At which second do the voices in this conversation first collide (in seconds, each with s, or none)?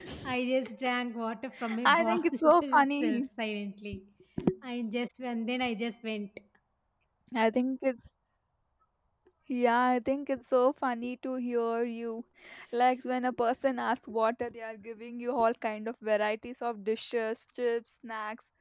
1.9 s